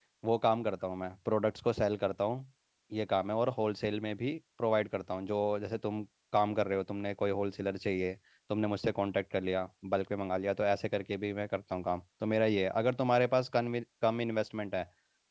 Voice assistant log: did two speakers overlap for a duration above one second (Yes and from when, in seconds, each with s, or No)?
No